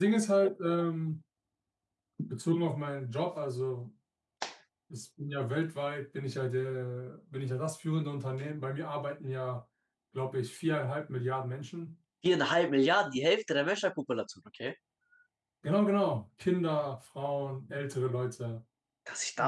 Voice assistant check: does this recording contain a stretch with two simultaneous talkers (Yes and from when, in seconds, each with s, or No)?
No